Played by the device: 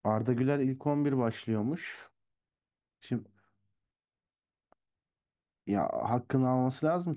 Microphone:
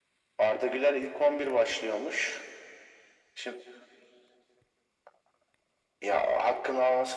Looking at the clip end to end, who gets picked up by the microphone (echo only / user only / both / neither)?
echo only